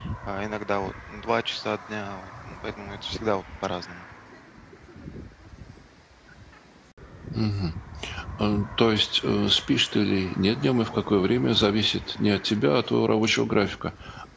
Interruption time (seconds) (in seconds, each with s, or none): none